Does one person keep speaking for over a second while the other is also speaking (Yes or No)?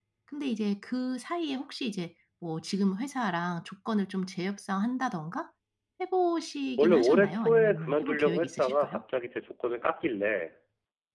Yes